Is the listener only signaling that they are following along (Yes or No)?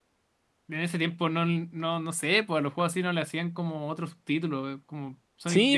No